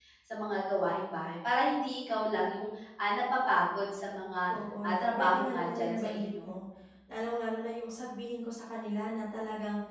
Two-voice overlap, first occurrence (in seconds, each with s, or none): 4.8 s